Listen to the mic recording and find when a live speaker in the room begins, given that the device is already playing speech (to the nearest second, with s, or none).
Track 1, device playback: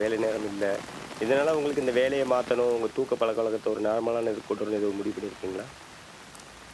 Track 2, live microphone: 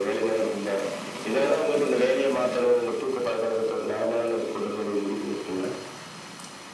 none